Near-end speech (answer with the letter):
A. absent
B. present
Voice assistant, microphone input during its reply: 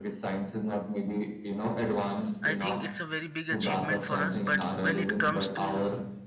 B